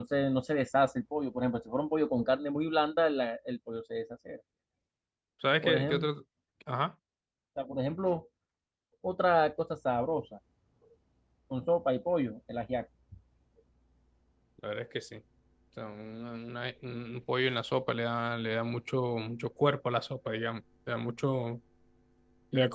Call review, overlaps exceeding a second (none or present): none